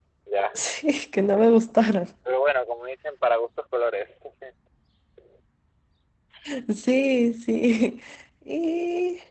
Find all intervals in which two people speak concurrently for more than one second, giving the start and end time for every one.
none

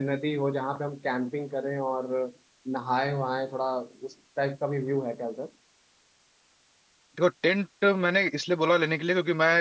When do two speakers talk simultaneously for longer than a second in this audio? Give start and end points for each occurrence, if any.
none

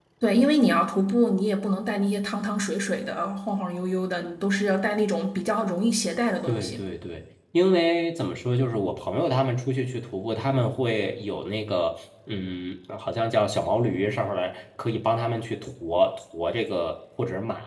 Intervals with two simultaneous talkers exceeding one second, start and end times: none

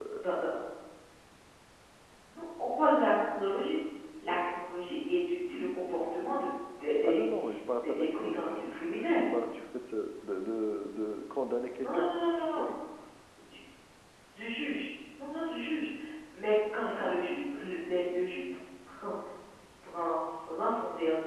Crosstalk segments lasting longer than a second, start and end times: 7.8-9.2

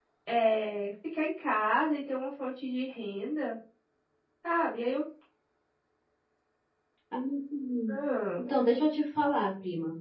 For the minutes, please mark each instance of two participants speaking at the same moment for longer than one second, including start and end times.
none

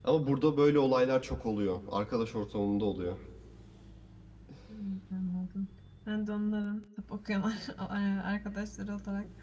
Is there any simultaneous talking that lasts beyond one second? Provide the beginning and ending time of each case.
none

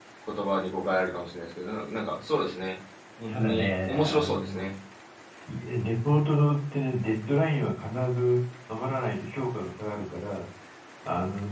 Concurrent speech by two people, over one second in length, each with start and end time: 3.3-4.6

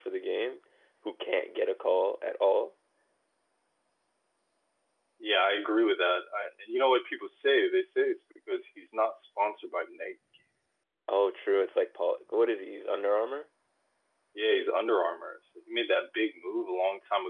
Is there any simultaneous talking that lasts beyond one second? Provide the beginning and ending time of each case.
none

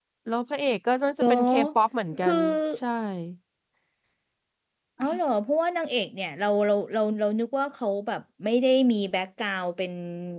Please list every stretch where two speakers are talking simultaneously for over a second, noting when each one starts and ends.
none

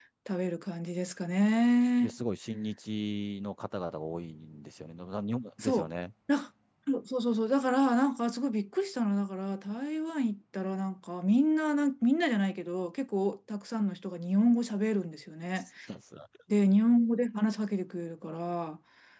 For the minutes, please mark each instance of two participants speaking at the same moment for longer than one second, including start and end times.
none

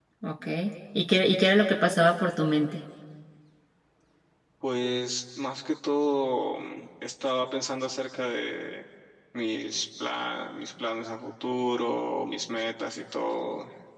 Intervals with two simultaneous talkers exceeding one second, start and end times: none

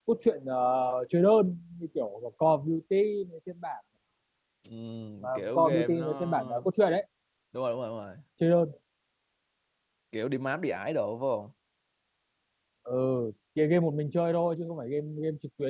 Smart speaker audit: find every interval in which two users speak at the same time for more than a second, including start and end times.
5.3-6.7

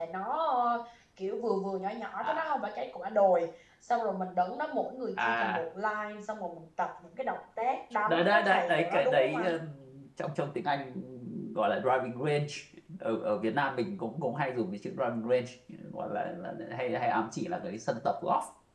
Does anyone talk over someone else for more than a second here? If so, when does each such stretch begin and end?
8.1-9.5

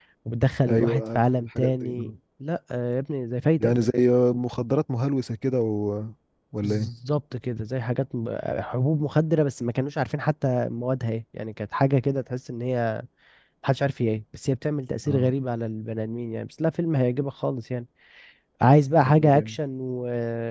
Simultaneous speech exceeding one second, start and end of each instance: 0.7-2.1

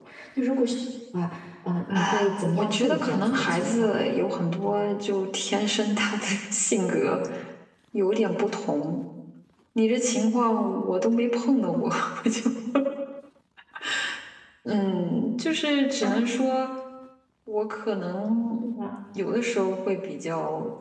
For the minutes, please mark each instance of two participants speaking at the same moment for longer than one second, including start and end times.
1.9-3.9

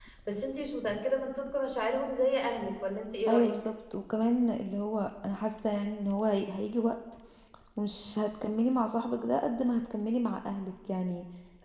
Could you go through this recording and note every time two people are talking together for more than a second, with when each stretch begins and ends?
none

